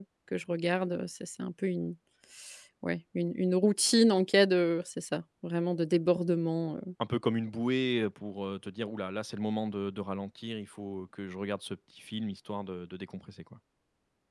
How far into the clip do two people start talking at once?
none

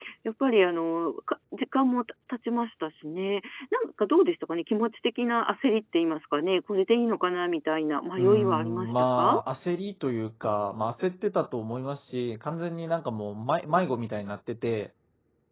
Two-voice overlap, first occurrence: 8 s

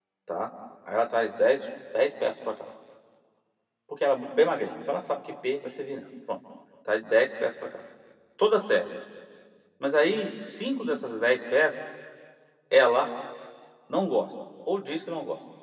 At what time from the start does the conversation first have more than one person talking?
none

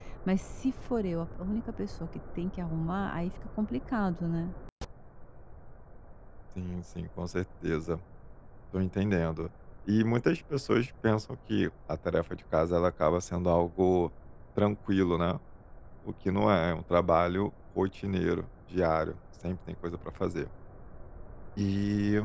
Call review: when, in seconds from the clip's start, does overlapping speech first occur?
none

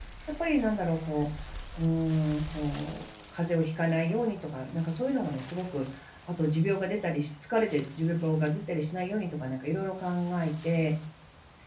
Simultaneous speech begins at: none

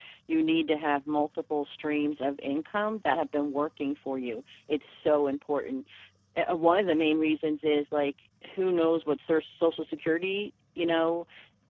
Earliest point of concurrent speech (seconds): none

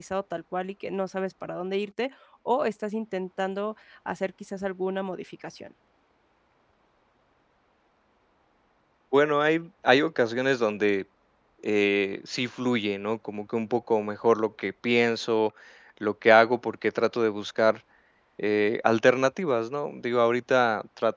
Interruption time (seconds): none

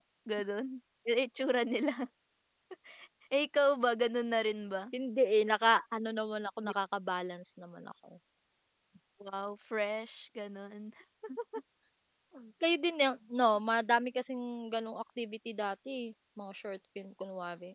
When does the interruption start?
none

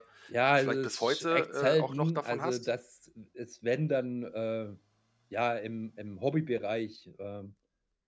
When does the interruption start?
1 s

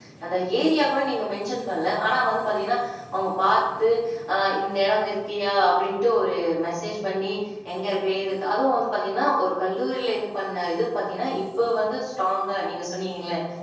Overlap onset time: none

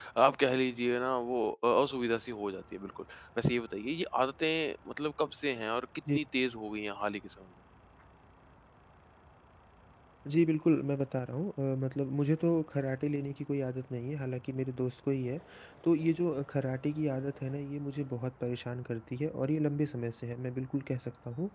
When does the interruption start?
none

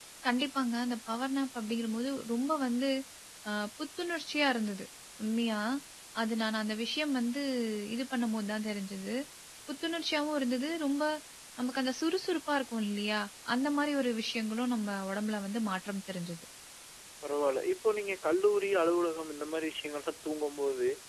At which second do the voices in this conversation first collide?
none

